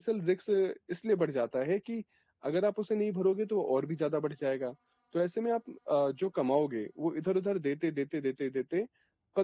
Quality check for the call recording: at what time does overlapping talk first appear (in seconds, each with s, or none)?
none